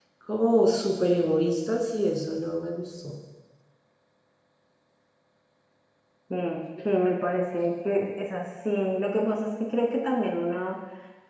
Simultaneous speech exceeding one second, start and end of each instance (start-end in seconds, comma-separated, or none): none